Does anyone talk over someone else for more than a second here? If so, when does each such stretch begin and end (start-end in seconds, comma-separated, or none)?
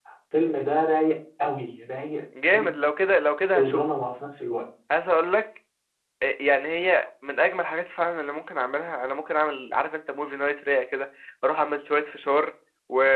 none